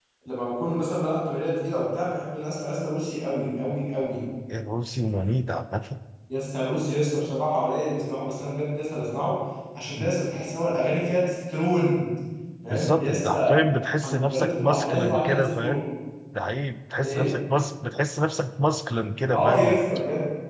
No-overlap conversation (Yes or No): No